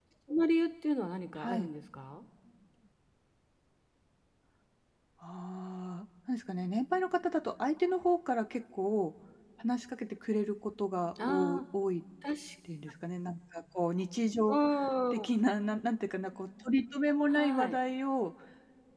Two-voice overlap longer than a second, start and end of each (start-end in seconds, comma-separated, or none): none